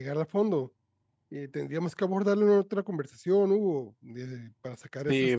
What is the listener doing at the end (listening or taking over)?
taking over